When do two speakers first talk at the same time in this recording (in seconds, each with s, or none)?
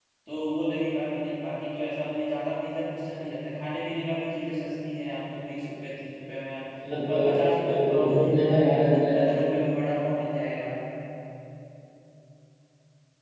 7.2 s